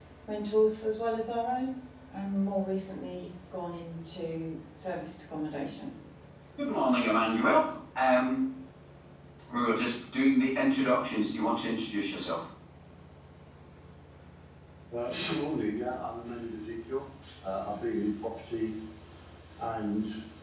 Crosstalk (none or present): none